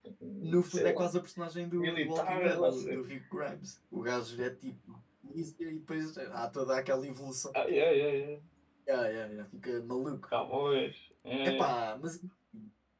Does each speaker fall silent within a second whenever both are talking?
No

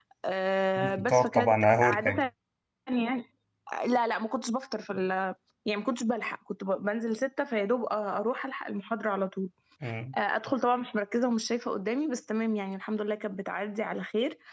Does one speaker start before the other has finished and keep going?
Yes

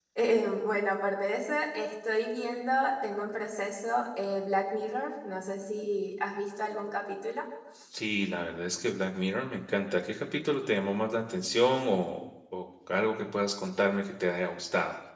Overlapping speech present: No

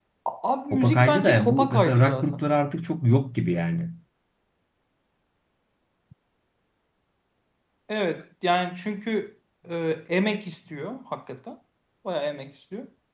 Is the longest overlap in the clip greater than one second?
Yes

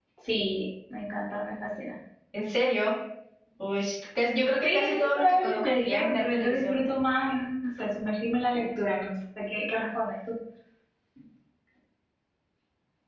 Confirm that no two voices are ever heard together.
No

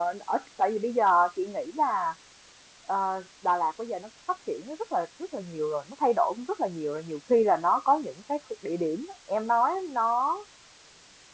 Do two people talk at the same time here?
No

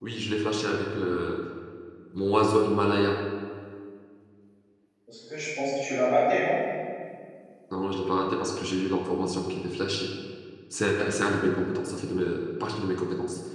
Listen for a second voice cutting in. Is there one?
No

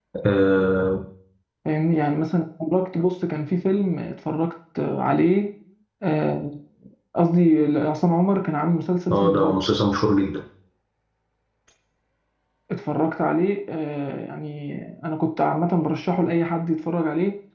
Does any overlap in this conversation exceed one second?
No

